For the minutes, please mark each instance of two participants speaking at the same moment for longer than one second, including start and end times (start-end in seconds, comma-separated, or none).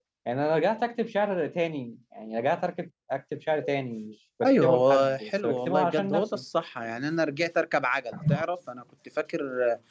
4.4-6.4